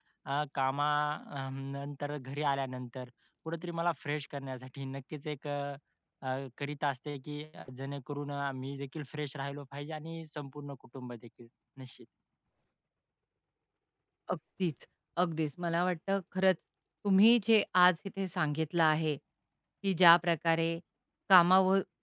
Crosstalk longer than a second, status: none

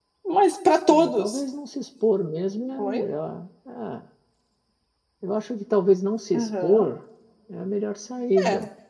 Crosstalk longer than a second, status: none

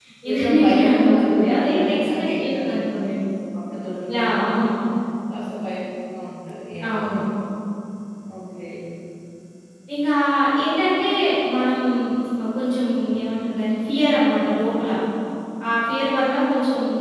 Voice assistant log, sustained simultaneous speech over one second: present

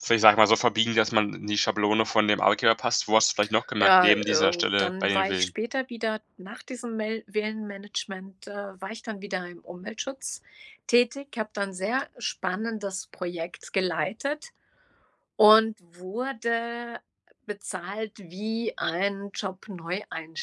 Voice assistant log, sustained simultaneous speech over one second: present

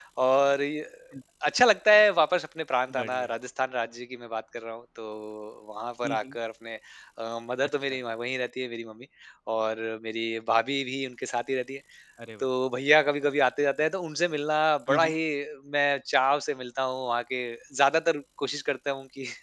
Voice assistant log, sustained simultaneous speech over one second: none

